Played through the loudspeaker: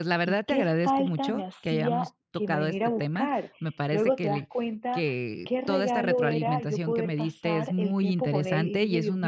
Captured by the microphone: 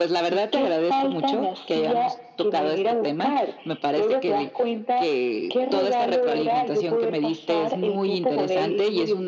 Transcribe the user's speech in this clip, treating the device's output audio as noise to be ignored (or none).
none